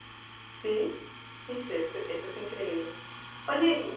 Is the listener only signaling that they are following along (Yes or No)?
Yes